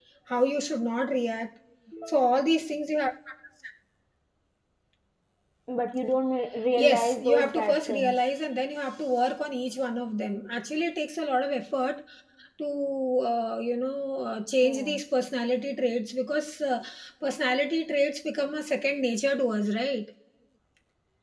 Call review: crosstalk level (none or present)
present